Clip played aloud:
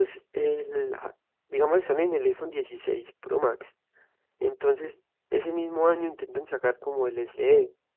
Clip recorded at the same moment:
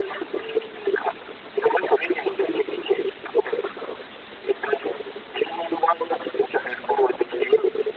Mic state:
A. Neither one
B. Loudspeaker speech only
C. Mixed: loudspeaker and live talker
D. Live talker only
B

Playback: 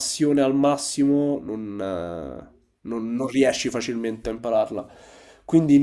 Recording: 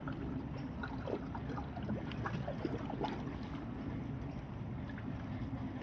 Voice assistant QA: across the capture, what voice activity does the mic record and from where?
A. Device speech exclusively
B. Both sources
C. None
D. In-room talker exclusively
C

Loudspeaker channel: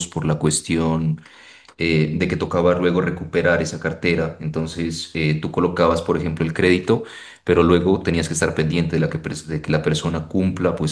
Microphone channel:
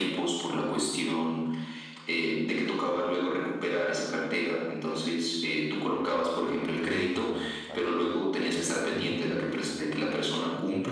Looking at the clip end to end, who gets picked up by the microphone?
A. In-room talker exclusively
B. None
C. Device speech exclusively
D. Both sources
D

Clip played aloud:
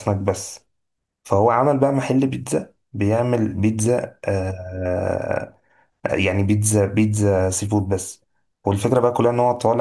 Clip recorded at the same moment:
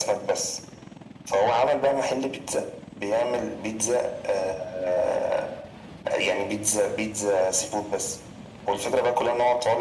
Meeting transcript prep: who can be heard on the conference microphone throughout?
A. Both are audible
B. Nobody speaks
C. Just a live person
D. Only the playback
D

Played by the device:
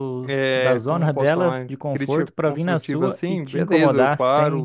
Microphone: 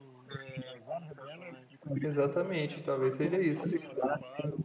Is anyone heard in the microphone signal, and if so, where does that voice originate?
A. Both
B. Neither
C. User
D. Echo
A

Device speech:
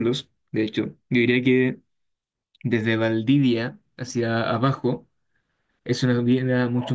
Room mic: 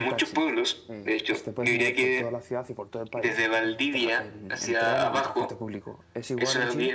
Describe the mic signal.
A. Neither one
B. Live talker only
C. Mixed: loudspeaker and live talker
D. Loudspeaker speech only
C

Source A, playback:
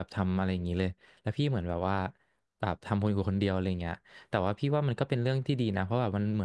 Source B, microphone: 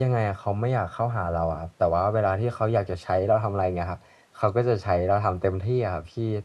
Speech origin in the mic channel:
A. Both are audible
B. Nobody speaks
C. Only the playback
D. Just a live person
D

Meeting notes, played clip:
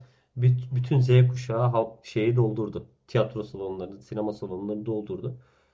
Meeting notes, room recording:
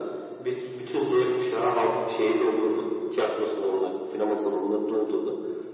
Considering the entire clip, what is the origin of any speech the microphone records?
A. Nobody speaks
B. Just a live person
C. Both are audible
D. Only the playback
D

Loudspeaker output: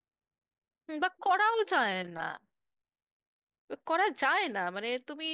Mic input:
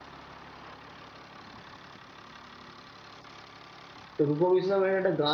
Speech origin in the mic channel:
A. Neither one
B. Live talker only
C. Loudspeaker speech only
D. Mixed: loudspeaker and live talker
B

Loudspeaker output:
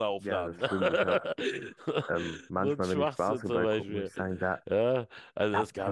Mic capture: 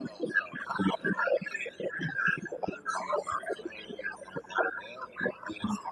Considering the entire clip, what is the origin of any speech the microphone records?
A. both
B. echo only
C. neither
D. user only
B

